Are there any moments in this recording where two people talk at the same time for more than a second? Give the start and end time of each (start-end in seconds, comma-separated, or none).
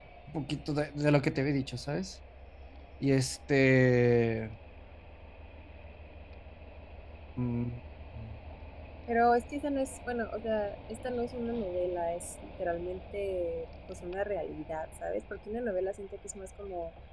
none